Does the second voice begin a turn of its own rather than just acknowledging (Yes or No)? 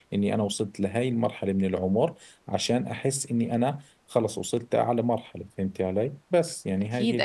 Yes